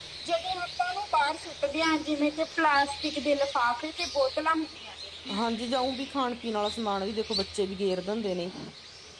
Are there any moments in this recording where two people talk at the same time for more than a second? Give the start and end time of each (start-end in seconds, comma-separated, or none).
none